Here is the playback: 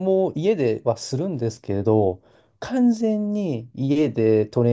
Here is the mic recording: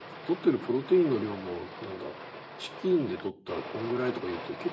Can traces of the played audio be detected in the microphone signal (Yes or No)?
No